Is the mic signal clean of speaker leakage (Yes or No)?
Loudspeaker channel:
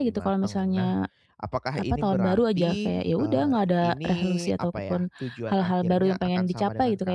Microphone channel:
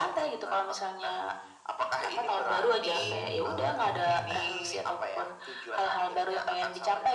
No